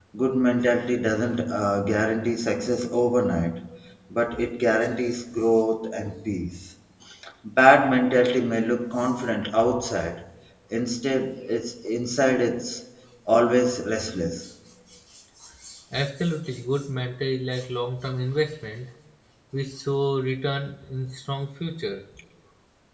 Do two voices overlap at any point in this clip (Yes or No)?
No